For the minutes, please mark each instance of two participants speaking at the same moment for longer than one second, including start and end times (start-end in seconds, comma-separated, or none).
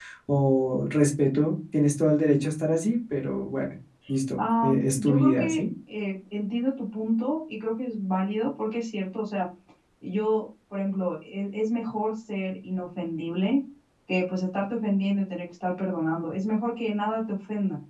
4.4-5.6